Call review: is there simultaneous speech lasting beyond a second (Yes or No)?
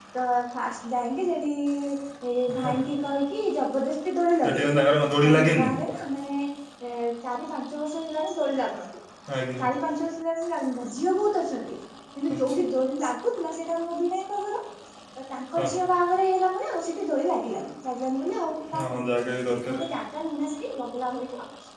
No